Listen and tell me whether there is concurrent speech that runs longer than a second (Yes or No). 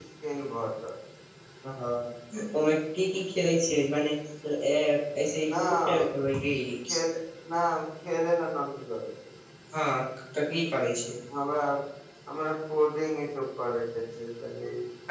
No